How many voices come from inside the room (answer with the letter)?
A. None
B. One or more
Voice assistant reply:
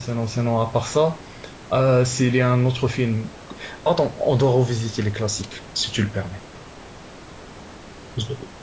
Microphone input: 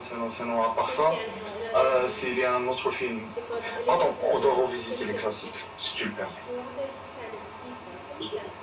B